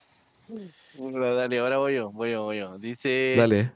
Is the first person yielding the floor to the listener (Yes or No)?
No